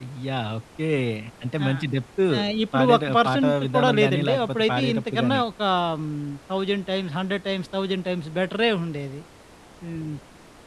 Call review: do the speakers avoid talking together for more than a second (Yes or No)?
No